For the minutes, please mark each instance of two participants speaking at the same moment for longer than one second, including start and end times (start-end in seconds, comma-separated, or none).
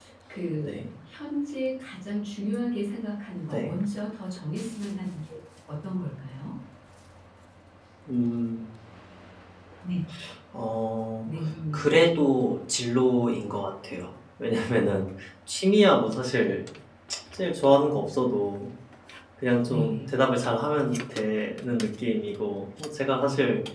none